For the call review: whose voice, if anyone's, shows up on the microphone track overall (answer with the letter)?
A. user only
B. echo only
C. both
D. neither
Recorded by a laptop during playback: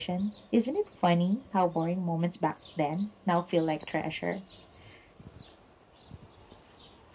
B